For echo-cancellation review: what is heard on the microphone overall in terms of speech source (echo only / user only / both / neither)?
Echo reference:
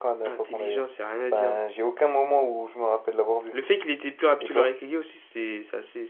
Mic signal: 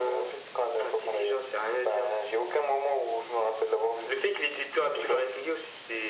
echo only